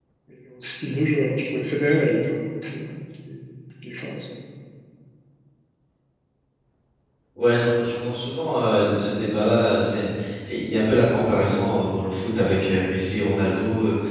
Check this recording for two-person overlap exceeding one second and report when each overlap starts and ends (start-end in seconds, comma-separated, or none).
none